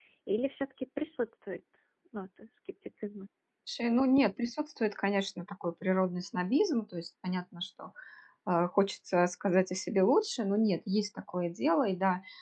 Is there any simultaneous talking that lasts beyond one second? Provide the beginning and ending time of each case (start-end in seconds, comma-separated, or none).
none